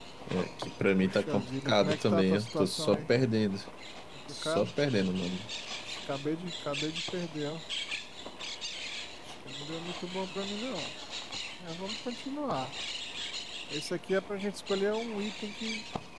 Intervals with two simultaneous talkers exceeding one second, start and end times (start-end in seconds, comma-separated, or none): 1.0-3.1